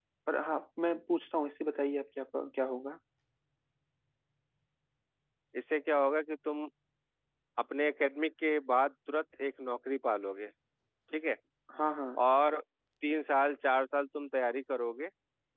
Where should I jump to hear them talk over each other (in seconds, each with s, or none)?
none